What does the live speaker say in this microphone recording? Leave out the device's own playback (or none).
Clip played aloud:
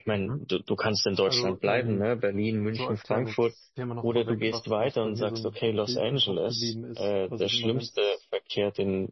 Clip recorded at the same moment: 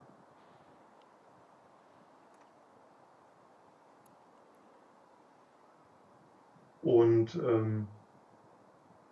und ähm,